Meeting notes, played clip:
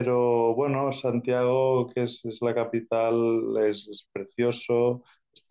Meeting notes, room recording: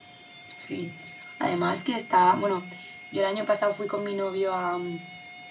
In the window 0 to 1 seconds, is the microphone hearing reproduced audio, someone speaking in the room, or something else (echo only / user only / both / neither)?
user only